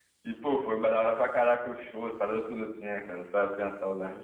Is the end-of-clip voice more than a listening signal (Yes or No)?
Yes